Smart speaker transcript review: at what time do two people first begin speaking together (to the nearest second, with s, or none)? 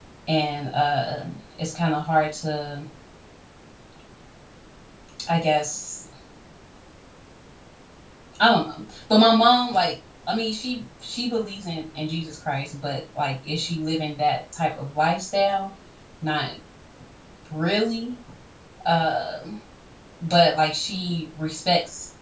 none